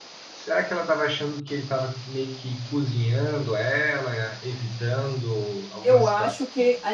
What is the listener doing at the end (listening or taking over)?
taking over